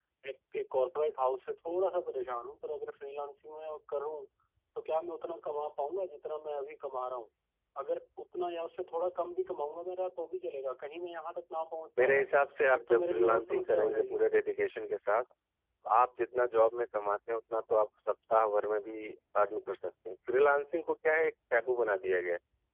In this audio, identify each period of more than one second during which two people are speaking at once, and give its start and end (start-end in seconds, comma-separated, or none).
12.7-14.2